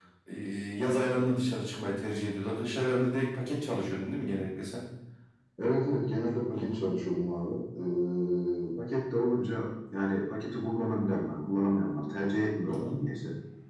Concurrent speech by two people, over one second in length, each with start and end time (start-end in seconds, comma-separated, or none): none